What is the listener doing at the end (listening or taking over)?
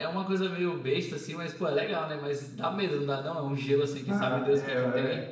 taking over